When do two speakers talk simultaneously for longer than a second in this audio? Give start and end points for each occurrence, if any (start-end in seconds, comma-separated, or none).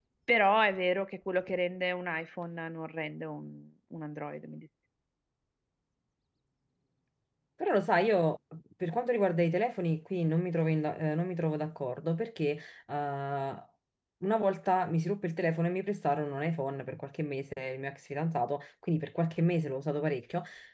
none